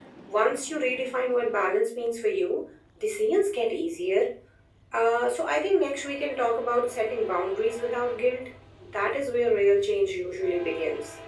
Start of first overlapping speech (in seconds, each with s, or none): none